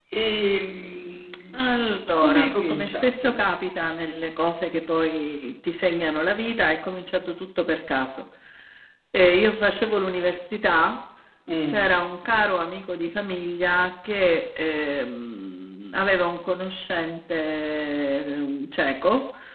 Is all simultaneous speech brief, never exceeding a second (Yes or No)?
No